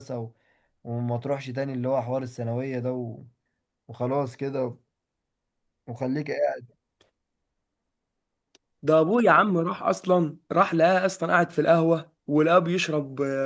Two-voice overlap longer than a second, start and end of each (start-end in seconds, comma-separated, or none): none